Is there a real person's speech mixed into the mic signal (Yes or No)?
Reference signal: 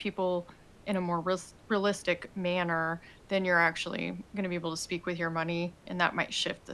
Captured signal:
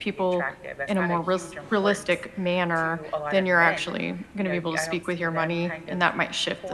Yes